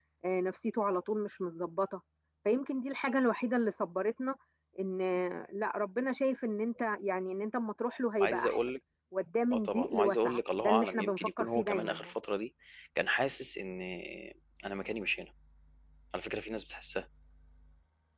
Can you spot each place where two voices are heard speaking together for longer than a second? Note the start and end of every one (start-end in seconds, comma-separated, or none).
9.5-12.1